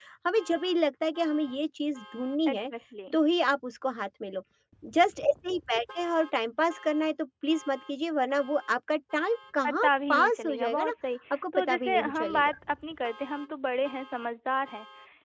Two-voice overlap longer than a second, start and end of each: 9.7-10.9, 11.3-12.5

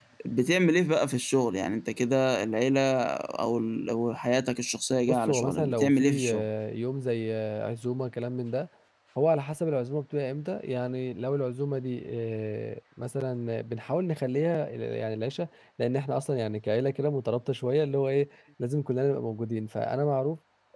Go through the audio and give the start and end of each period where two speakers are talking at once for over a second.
5.1-6.4

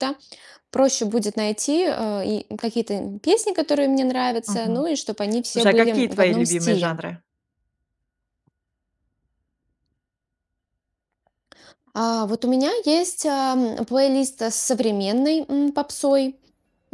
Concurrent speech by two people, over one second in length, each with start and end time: 5.5-7.0

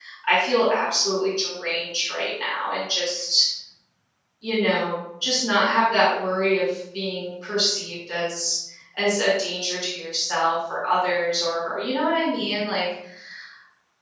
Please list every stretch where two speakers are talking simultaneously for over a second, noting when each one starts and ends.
none

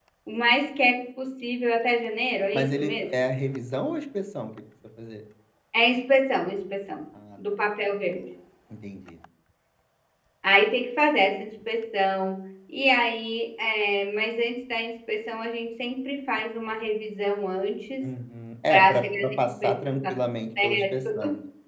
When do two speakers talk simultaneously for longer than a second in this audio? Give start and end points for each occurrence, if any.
18.7-20.1

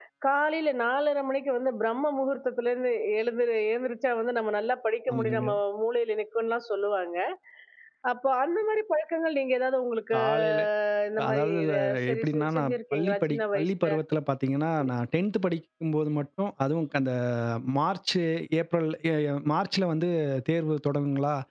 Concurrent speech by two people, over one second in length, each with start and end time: 11.3-14.0

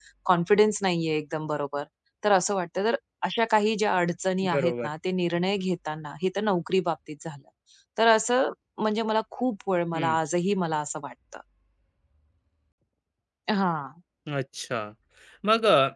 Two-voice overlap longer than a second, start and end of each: none

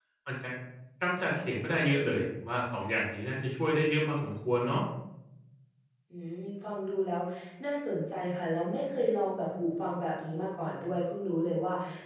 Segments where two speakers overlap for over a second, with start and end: none

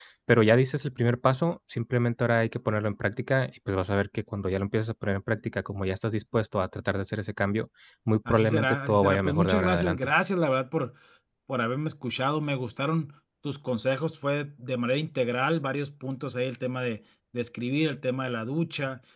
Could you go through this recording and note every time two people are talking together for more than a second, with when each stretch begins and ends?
8.3-10.1

